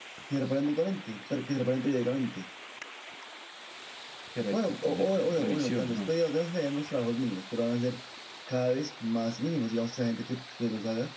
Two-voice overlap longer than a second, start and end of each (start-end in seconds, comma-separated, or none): 4.5-6.1